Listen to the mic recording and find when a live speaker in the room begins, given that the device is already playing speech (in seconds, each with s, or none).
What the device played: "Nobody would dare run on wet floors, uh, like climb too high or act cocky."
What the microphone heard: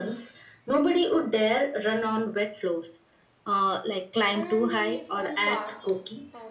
4.3 s